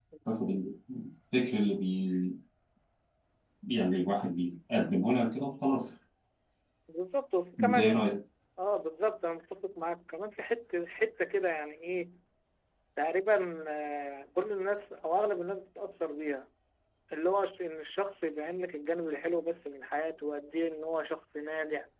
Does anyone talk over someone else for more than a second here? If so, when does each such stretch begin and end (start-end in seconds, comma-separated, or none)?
none